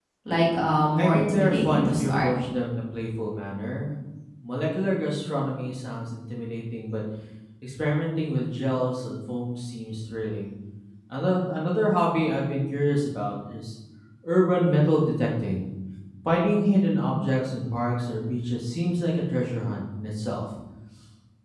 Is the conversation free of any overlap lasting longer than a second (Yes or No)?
No